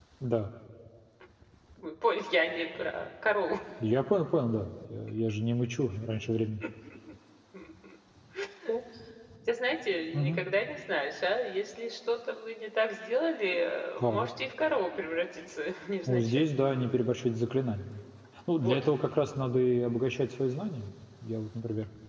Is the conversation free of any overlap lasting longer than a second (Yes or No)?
Yes